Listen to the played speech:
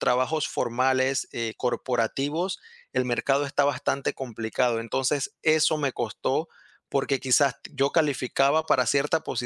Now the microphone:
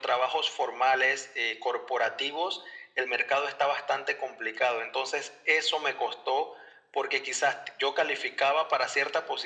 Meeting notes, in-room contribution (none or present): none